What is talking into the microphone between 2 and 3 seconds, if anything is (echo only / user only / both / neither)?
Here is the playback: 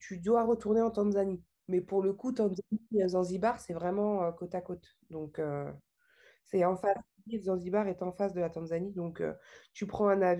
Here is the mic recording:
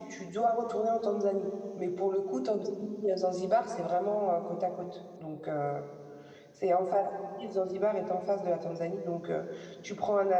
echo only